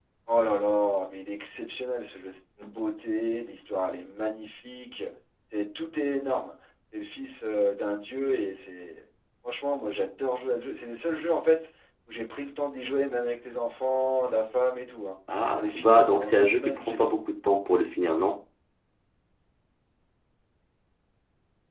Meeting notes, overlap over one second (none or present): present